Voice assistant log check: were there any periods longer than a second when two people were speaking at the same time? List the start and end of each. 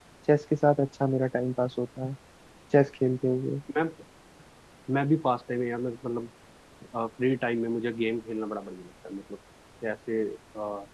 none

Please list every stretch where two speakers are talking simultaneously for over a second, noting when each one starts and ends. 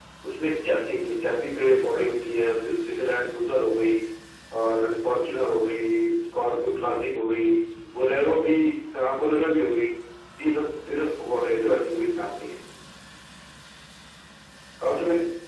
none

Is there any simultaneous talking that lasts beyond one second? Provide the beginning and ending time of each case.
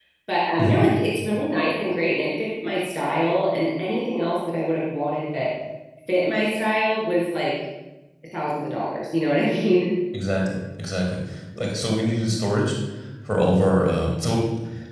none

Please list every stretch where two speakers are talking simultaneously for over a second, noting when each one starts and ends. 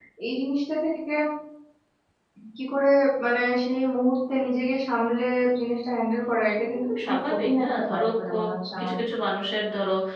7.0-8.3

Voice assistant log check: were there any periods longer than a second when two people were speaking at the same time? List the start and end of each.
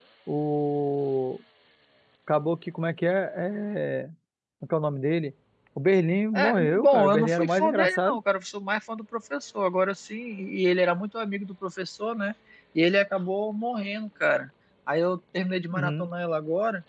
6.3-8.2

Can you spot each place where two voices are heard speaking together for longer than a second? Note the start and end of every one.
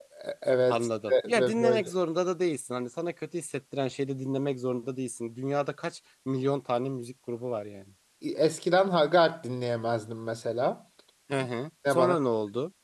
0.7-1.9

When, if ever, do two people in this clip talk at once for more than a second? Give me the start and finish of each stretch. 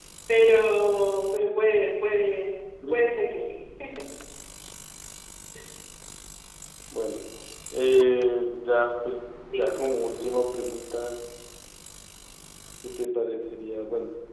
none

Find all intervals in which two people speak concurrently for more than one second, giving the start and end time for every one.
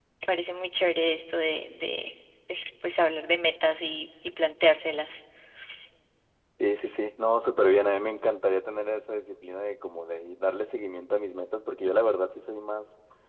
none

